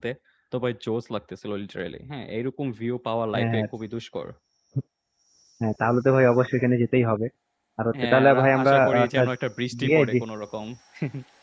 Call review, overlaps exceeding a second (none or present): present